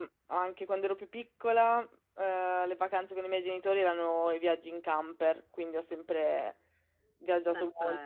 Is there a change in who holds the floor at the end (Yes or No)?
No